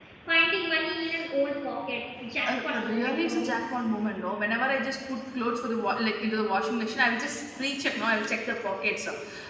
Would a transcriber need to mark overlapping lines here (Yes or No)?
Yes